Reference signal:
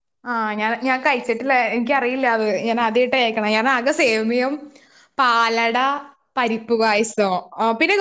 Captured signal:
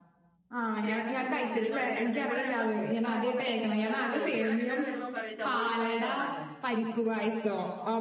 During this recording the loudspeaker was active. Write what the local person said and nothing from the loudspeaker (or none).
ചിരി രണ്ടിപ്പരി ഇപ്പ മുന്തിരിയും കൂടി ഇട്ട് എടുത്ത ഇവിടെ ഞങ്ങള പുത്രനൊക്കെ ഭയങ്കര ഇഷ്ട ഇവിടെ പിള്ളേരെല്ലാണ്ട് വരുമ്പോം പറയും ചര് പായസം ഉണ്ടാക്കാാന്